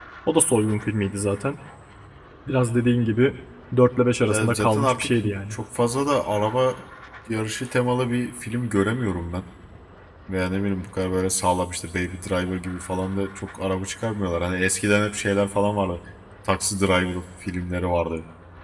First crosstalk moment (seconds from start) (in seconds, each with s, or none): 4.3 s